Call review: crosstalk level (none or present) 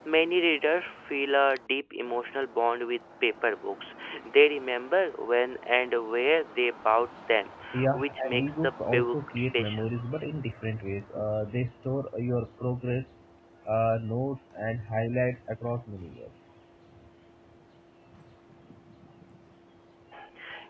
present